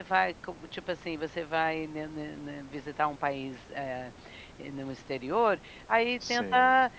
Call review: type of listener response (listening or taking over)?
listening